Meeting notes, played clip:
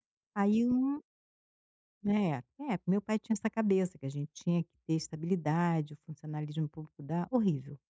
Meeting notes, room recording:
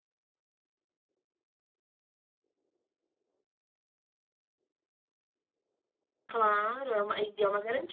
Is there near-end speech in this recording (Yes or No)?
Yes